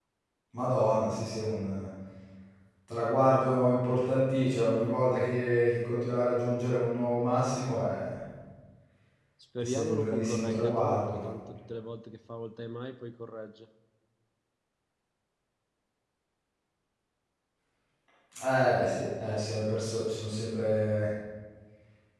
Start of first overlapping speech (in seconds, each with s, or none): 9.6 s